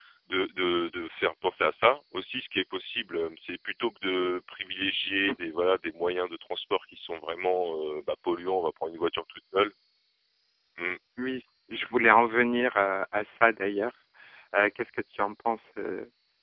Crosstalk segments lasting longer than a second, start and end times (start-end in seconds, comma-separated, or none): none